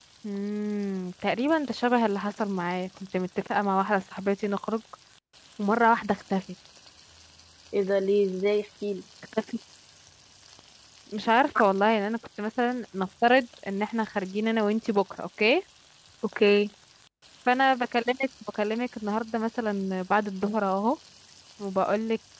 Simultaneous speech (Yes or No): No